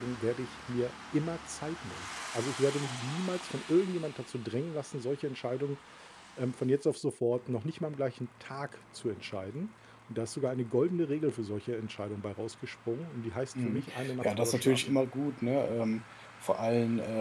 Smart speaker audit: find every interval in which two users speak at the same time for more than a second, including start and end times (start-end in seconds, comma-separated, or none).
13.6-14.9